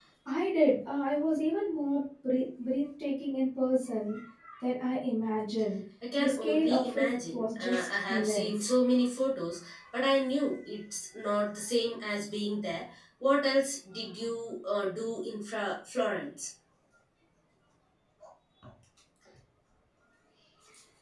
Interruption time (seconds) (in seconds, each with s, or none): 6.0 s